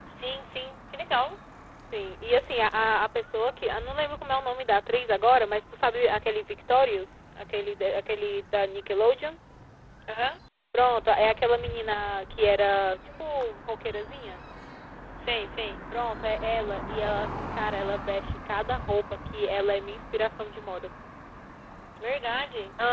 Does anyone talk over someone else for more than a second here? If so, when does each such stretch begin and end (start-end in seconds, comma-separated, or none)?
none